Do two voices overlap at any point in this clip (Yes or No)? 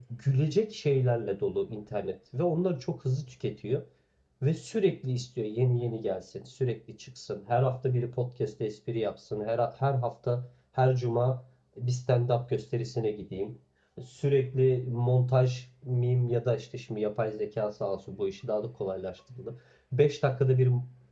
No